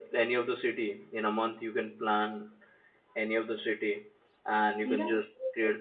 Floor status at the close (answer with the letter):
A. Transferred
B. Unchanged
B